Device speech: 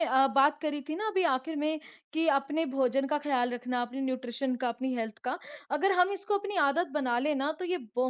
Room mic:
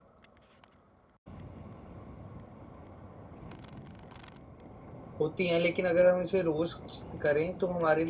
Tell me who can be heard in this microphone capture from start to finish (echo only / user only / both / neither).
user only